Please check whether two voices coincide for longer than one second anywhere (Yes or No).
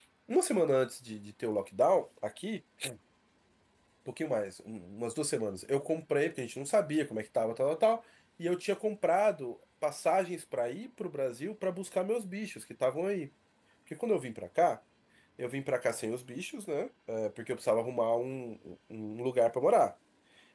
No